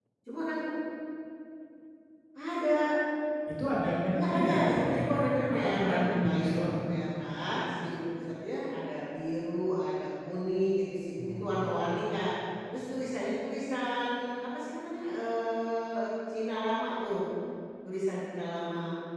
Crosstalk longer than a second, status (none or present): present